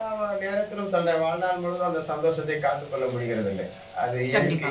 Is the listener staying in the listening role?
Yes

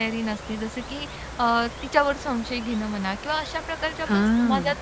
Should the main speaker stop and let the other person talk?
No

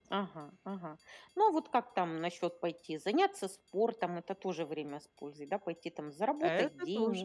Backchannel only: No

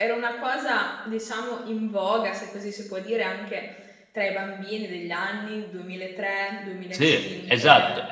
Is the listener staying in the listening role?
No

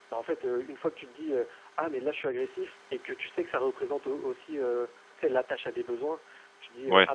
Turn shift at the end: No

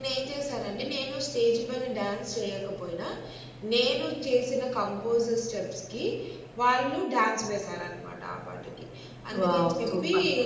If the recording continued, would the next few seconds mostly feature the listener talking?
Yes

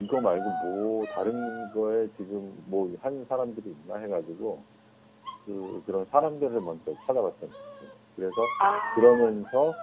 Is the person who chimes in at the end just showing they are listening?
Yes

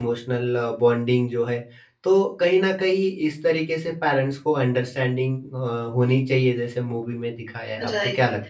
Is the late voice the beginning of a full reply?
Yes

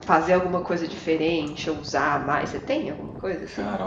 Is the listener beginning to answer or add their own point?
Yes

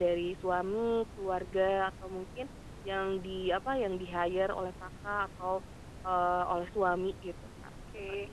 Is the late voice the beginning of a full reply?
Yes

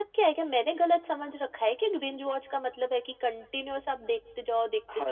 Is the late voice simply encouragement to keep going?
No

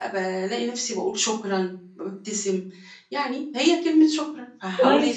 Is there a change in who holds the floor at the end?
Yes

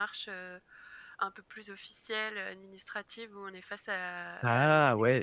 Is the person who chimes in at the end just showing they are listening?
Yes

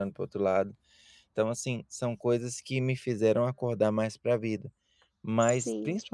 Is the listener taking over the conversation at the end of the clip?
No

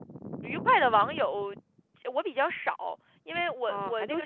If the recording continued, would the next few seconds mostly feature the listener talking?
Yes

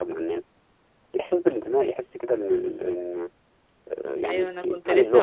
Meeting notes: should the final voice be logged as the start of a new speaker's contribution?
Yes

